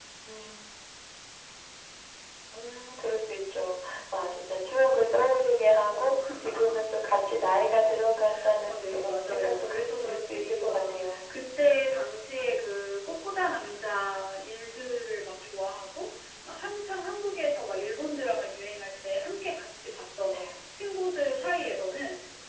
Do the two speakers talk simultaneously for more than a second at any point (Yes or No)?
Yes